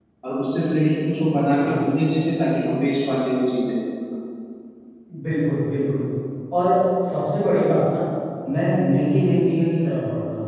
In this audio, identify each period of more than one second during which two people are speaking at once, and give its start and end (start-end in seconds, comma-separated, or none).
none